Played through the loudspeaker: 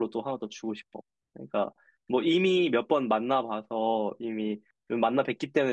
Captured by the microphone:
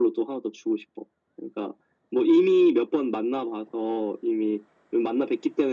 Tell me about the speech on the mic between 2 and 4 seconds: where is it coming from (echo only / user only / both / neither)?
echo only